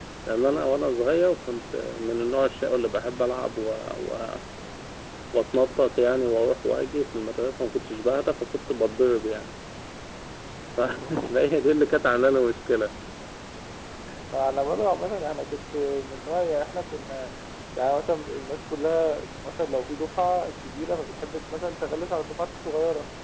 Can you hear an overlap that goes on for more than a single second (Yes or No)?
No